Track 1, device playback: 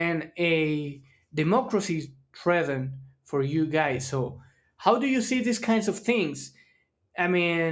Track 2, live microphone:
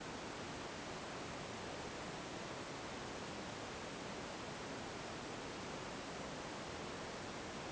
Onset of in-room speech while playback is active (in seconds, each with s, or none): none